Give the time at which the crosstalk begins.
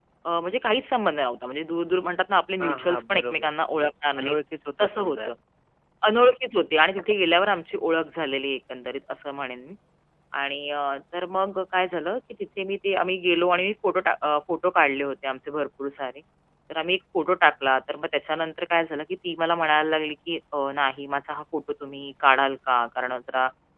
2.6 s

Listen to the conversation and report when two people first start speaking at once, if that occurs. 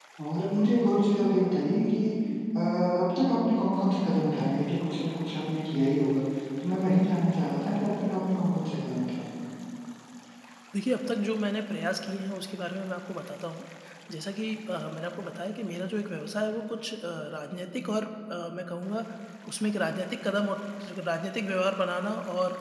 none

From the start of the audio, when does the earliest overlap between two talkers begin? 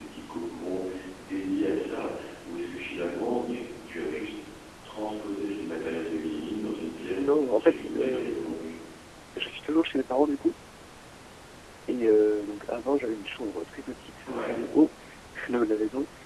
7.2 s

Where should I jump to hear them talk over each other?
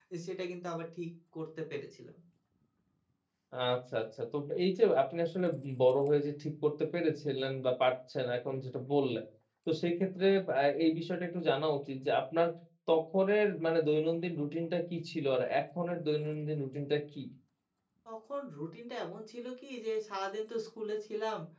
none

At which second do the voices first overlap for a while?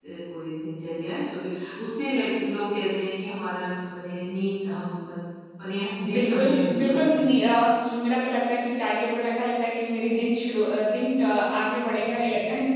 6.1 s

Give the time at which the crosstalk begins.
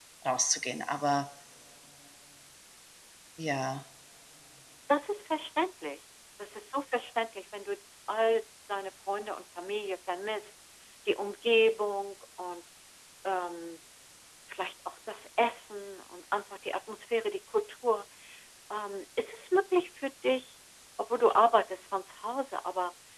none

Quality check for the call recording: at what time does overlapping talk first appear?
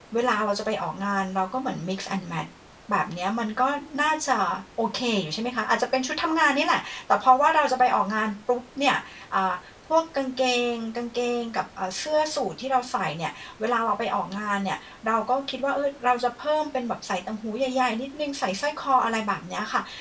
none

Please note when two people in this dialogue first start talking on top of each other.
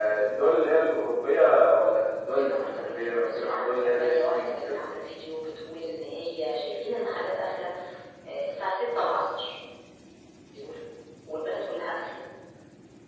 2.3 s

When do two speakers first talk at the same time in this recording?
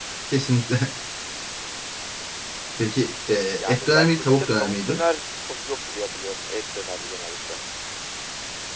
3.6 s

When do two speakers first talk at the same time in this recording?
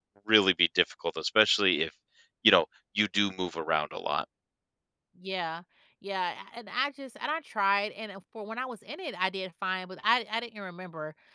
none

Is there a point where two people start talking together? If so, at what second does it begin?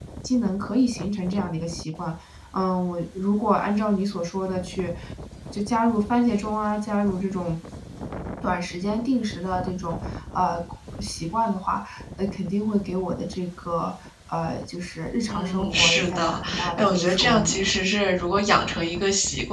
15.3 s

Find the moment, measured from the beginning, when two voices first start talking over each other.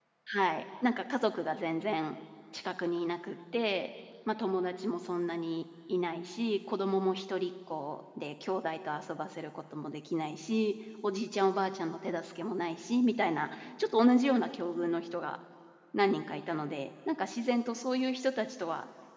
none

